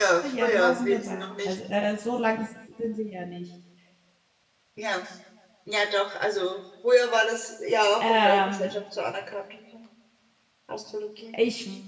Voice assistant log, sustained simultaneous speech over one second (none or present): present